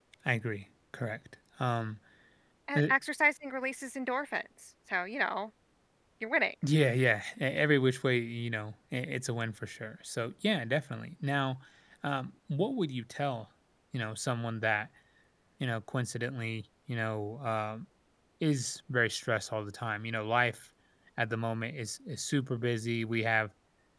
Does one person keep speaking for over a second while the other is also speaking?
No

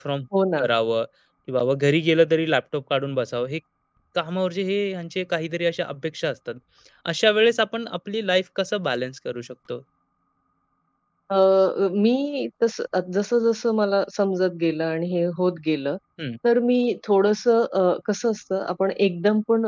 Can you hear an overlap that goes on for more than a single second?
No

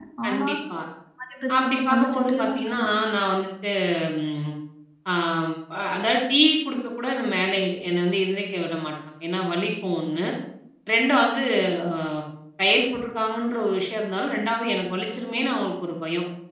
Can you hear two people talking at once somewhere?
Yes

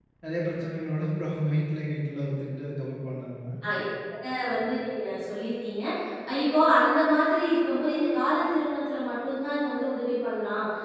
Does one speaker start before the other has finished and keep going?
No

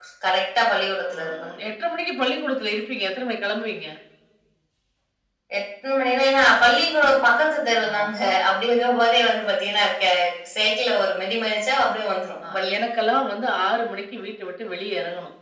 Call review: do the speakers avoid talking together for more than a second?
Yes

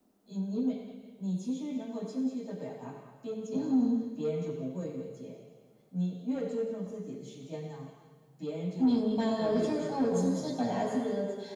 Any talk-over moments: Yes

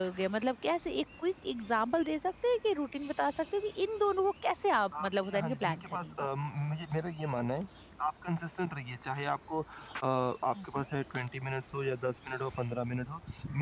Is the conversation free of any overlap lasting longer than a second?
No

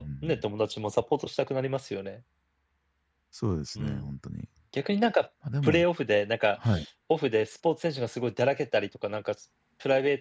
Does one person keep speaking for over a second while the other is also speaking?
No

